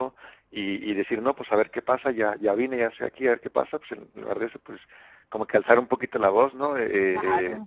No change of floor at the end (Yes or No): Yes